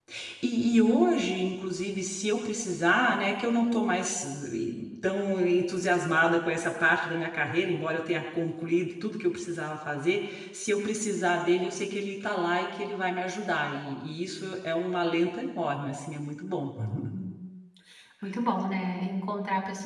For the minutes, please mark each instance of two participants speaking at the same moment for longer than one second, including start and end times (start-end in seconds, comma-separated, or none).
none